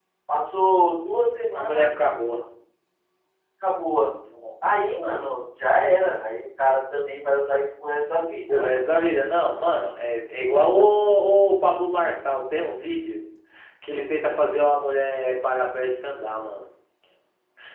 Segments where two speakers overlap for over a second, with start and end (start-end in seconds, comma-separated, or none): none